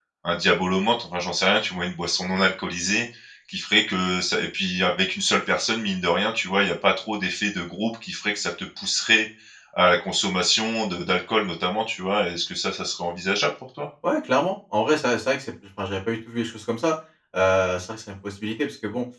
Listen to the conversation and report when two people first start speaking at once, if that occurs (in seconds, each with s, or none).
none